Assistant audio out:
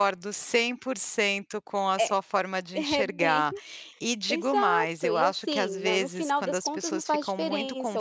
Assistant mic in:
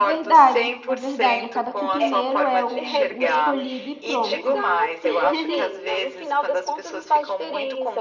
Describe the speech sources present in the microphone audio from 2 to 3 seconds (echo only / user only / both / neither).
both